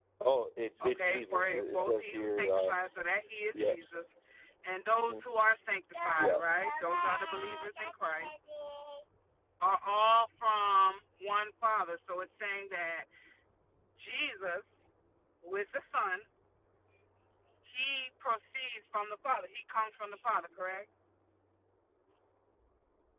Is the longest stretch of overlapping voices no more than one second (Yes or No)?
No